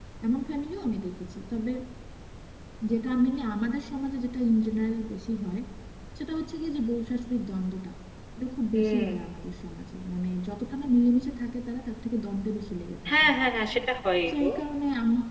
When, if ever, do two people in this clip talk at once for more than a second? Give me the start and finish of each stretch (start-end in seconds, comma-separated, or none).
none